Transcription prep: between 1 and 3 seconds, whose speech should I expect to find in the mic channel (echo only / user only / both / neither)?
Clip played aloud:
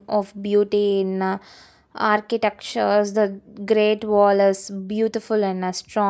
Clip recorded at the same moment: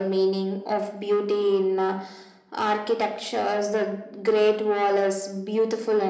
echo only